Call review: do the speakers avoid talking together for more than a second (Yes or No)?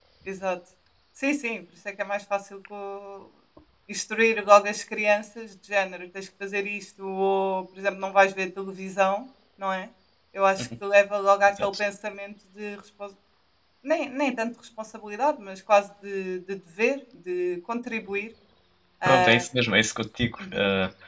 Yes